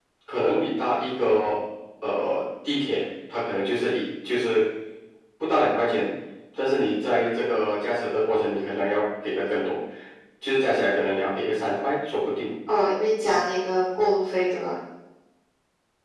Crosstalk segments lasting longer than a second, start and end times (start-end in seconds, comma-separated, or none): none